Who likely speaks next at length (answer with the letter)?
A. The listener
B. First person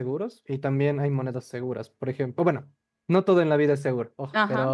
B